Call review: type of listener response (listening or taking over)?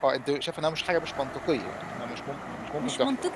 taking over